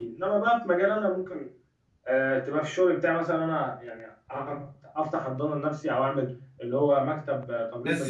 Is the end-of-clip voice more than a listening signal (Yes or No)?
Yes